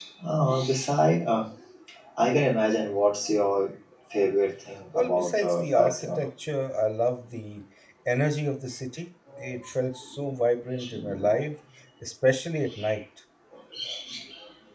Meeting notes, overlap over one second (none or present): present